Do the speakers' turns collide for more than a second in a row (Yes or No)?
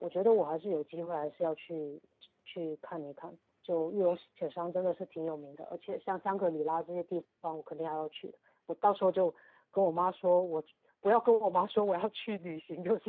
No